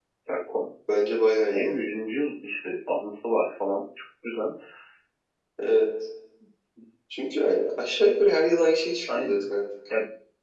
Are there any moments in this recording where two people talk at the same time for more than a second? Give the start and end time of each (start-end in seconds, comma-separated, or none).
none